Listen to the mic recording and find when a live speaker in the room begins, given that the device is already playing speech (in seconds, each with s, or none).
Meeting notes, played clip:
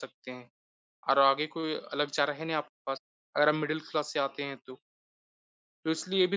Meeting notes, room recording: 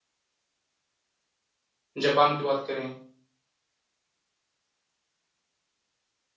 2.0 s